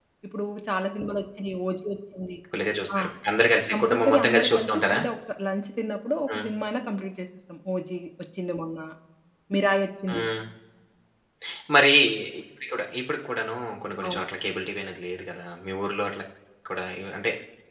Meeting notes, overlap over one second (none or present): present